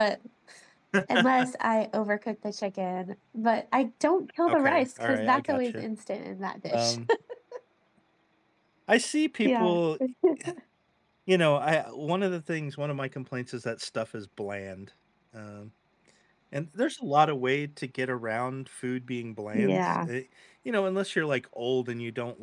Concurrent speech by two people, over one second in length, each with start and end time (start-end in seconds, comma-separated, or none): 4.5-5.8